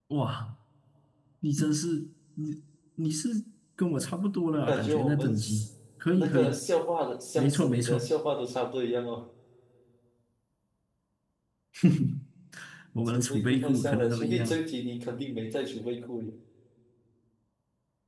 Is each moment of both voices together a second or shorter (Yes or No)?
No